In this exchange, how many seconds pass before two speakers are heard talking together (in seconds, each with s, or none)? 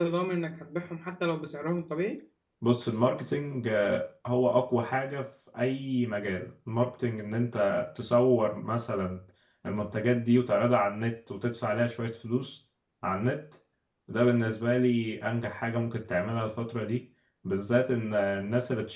none